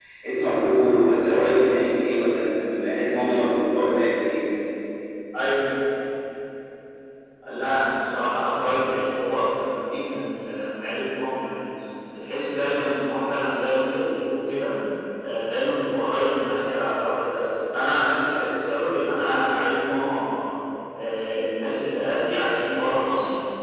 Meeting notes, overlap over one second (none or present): none